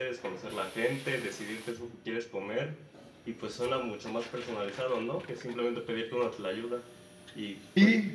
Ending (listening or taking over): listening